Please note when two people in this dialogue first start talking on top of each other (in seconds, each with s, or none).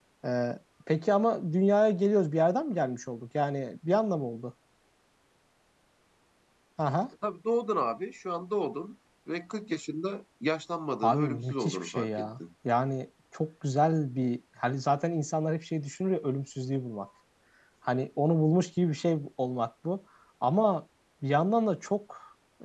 11.0 s